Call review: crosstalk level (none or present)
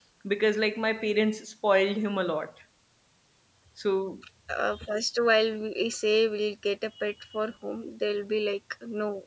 none